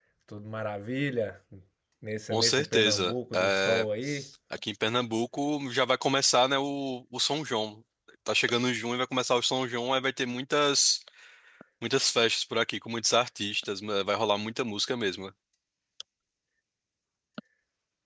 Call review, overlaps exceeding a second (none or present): present